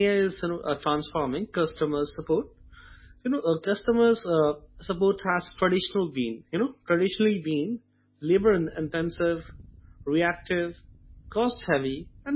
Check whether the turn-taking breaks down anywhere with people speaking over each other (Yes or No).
No